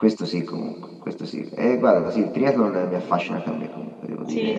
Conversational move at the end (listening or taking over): taking over